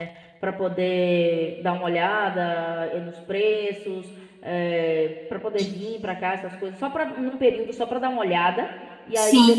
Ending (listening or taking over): listening